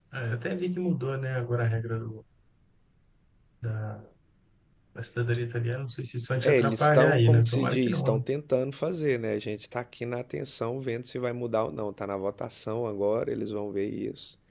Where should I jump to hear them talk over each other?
6.4 s

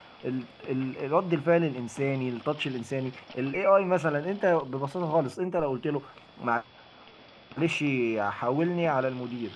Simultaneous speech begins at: none

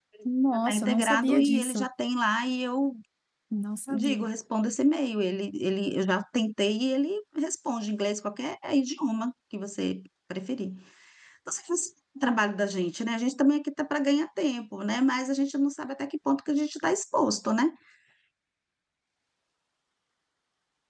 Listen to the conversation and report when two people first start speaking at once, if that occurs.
0.5 s

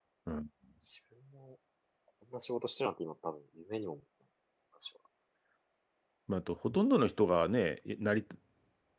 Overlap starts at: none

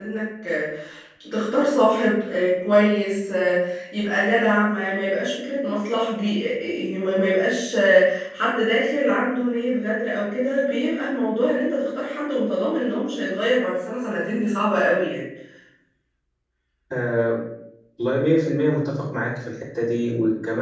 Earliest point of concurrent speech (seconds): none

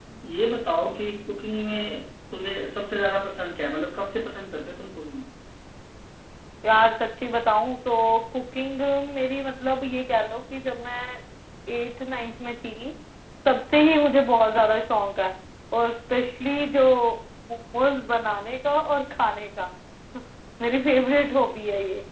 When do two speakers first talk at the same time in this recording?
none

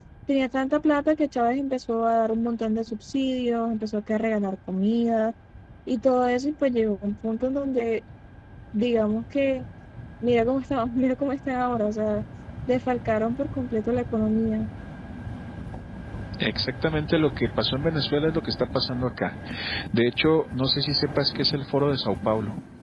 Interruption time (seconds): none

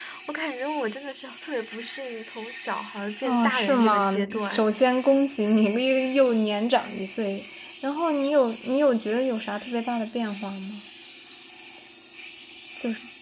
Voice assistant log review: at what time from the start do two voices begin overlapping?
3.2 s

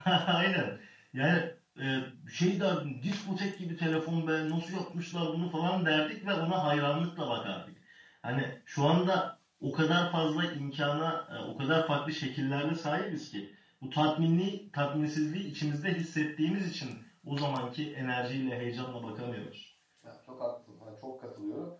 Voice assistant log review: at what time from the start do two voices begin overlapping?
none

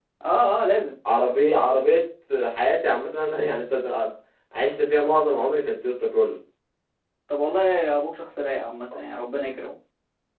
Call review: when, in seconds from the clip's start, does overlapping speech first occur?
none

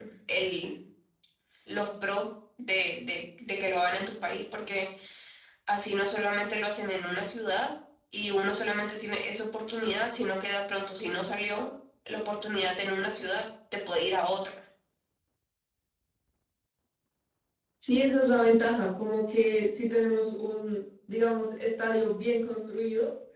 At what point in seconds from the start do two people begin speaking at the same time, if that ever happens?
none

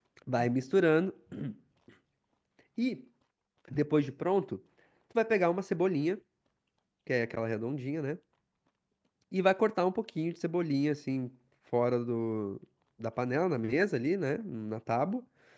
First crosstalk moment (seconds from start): none

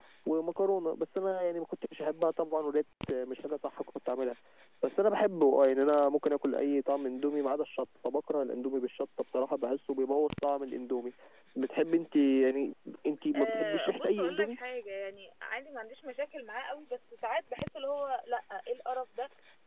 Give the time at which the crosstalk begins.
13.3 s

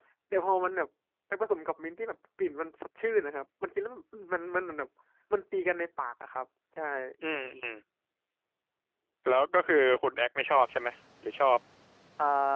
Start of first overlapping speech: none

